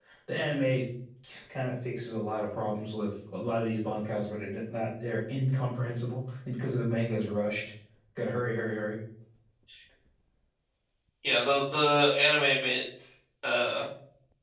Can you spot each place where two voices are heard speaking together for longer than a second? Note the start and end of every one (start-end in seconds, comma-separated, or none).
none